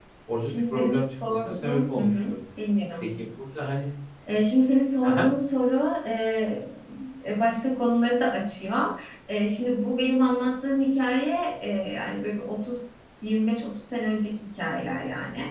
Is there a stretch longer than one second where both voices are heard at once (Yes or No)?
Yes